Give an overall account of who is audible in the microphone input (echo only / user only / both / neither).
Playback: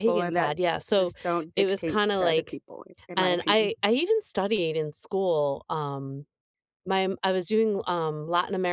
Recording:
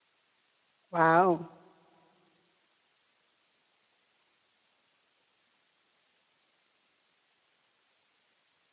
user only